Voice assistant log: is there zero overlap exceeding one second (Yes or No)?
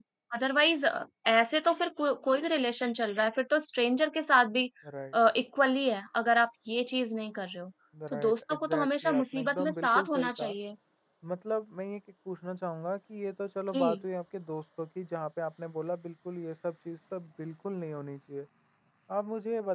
No